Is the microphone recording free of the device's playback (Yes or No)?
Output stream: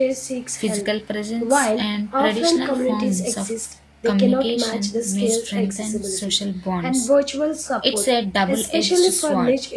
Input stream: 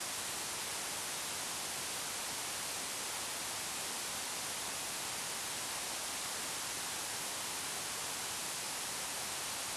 Yes